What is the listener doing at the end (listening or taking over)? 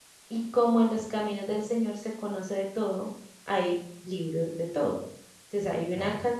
listening